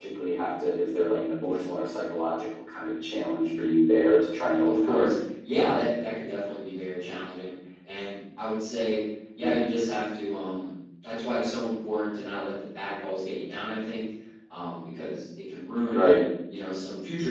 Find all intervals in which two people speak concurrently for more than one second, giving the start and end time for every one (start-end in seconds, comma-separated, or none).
none